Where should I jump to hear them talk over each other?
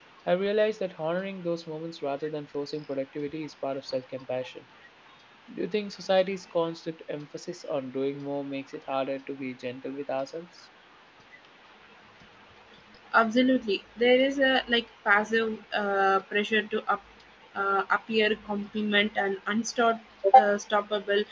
none

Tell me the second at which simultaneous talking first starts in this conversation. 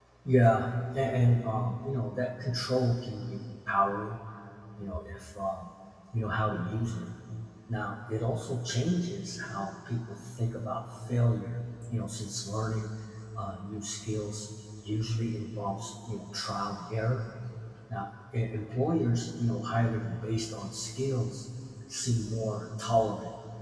none

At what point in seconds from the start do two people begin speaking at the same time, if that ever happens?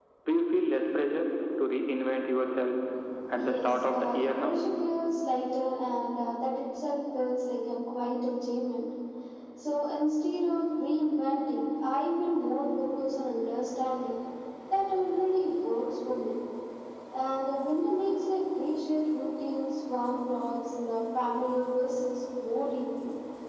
3 s

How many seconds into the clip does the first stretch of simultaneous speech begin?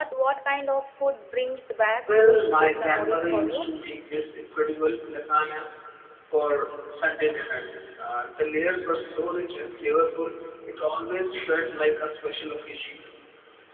2 s

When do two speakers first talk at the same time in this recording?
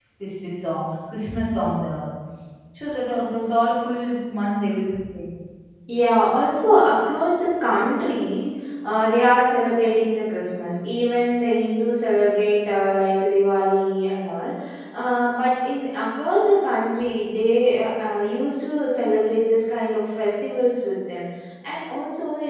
none

